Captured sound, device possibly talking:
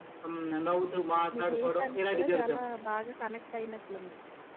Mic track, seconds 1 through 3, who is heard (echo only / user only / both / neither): both